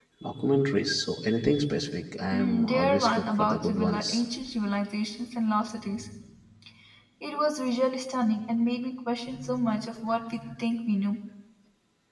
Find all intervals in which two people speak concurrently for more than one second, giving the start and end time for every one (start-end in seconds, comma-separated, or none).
2.3-4.1